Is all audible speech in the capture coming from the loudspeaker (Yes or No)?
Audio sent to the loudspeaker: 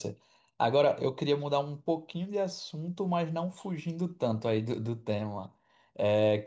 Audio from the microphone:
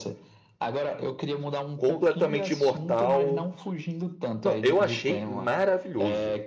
No